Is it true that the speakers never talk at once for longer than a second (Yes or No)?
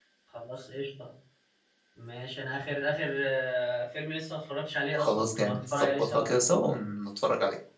No